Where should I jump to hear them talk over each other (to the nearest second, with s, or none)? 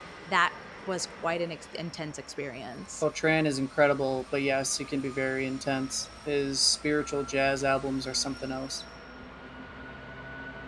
none